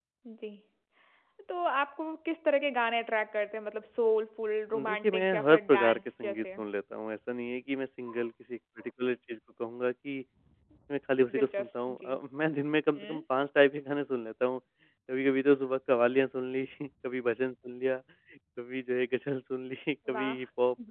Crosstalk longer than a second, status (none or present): present